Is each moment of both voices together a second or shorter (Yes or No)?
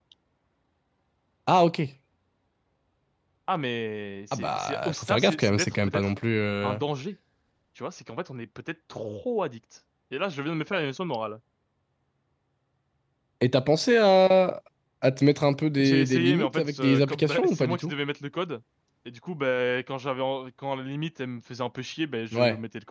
No